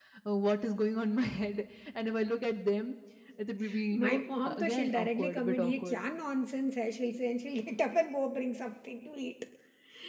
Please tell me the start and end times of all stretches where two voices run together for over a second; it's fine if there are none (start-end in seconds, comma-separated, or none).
3.9-6.0